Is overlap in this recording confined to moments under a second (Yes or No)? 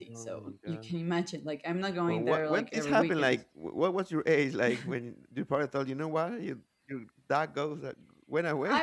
No